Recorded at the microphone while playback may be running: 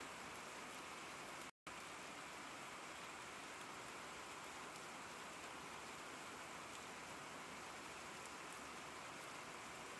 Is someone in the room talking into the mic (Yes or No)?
No